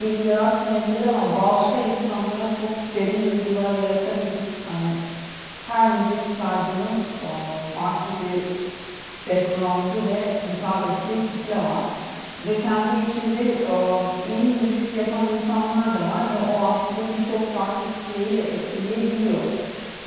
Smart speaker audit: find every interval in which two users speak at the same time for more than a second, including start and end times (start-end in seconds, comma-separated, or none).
none